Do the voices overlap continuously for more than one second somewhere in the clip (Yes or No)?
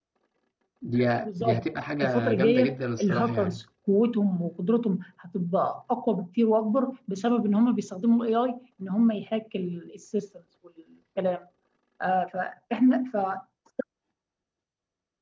Yes